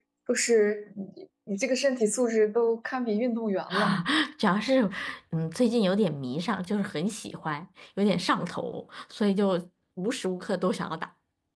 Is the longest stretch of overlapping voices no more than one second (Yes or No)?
Yes